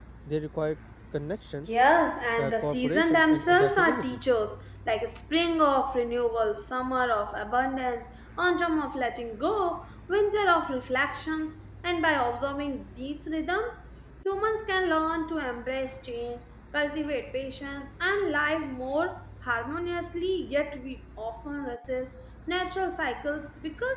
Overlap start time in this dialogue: 2 s

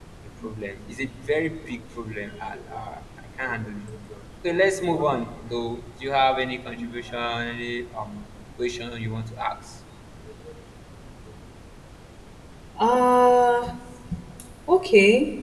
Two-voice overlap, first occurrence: none

